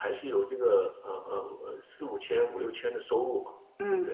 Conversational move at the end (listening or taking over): listening